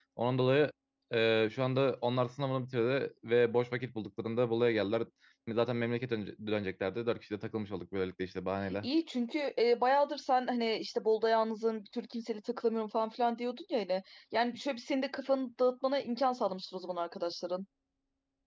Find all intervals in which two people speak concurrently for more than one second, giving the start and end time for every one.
none

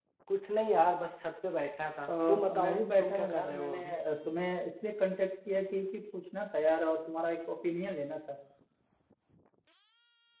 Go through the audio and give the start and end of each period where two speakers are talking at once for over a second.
2.1-4.0

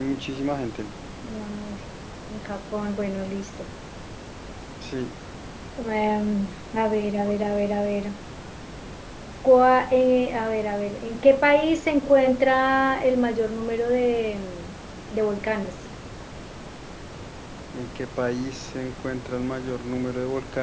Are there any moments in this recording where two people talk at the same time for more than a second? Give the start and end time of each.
none

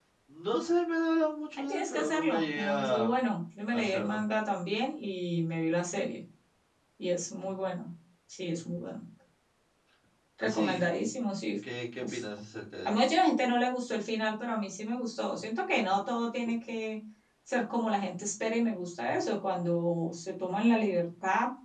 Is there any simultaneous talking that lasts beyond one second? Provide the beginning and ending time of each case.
1.6-3.1

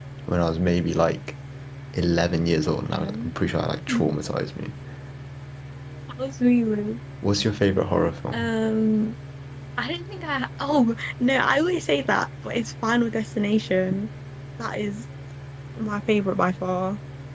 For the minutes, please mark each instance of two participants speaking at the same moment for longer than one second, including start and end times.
none

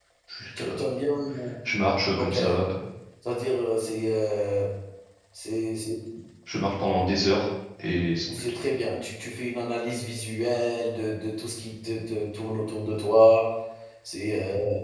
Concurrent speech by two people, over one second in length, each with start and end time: none

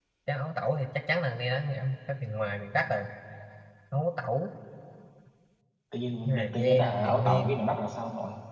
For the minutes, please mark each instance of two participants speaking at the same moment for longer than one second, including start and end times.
6.2-7.6

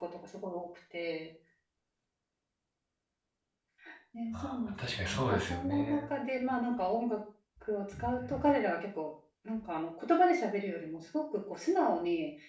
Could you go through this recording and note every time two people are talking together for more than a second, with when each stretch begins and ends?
4.4-6.0

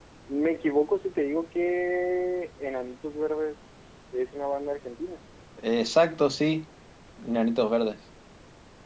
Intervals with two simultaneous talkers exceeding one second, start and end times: none

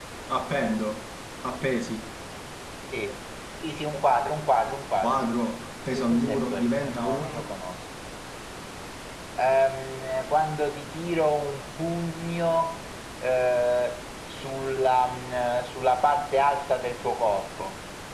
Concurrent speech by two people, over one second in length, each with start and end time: 5.9-7.4

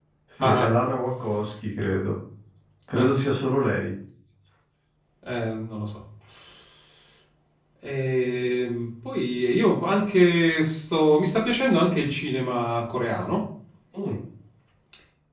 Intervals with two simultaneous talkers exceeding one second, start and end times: none

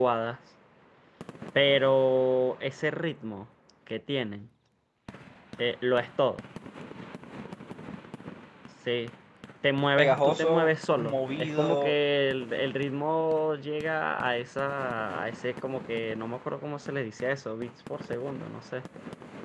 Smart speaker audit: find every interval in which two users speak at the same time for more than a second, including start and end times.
10.0-12.0

